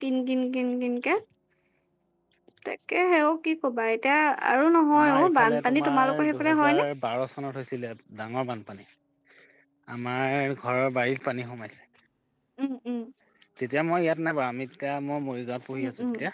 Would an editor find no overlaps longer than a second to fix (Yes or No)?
No